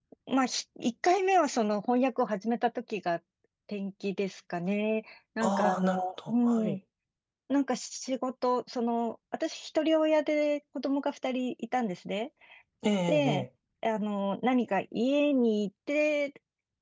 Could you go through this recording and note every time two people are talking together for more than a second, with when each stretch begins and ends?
5.4-6.8

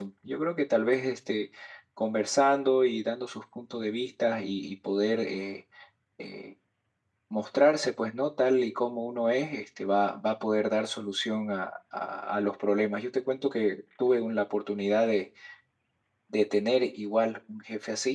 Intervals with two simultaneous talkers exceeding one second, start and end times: none

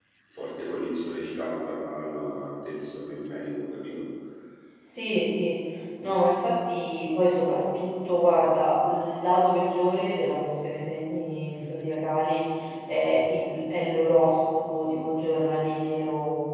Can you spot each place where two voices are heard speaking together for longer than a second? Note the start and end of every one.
none

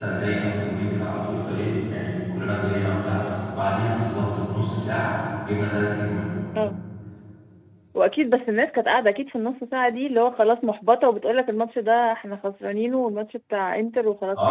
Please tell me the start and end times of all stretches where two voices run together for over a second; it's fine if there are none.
none

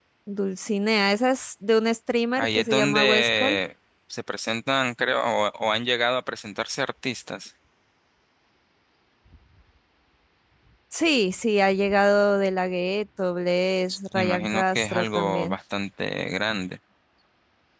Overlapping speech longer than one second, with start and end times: 2.4-3.6, 14.1-15.6

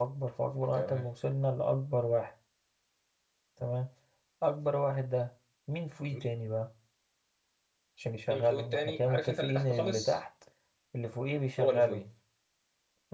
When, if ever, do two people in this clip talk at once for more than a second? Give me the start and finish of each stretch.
8.3-10.2

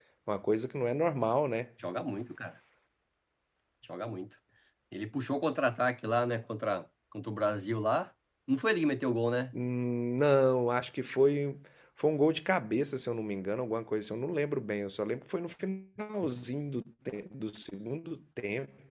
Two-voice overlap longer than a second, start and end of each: none

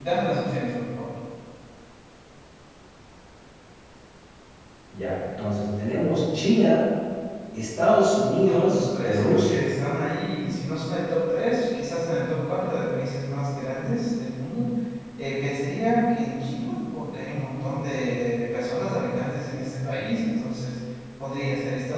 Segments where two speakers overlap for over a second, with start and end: 8.5-9.7

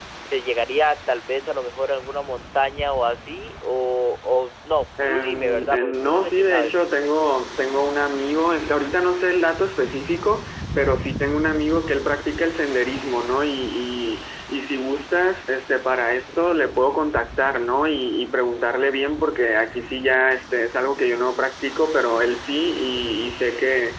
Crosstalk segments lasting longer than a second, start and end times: 5.1-6.7

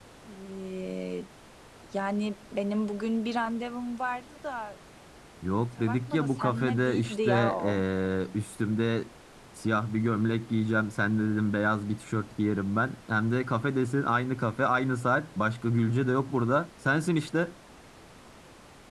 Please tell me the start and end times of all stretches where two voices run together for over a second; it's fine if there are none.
5.8-7.8

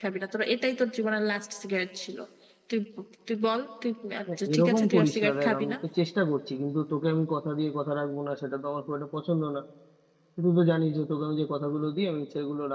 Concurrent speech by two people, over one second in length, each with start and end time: 4.5-5.8

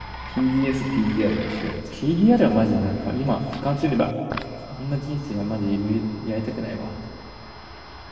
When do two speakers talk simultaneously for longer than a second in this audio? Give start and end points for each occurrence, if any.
none

